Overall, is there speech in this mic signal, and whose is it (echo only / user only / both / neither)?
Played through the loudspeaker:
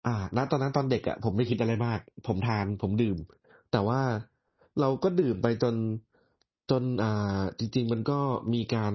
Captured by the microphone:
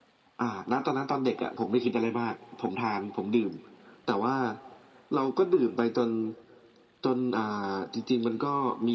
echo only